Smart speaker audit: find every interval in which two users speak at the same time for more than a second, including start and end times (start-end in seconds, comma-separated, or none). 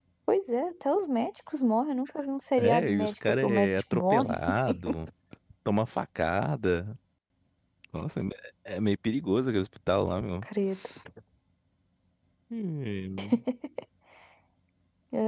2.6-4.3